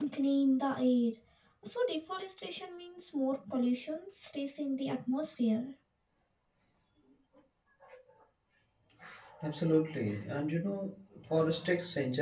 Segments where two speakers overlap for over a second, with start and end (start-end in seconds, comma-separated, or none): none